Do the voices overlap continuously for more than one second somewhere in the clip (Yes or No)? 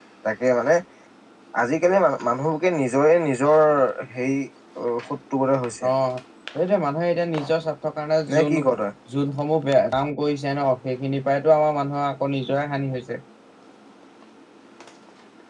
No